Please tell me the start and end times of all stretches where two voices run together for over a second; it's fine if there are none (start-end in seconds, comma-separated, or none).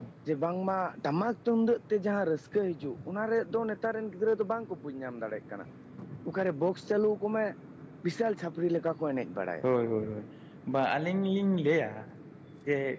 none